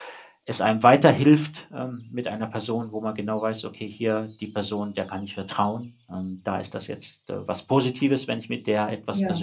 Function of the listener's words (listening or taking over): listening